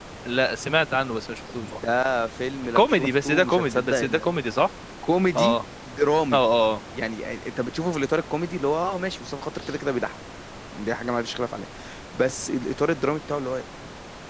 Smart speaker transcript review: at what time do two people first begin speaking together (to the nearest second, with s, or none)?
3 s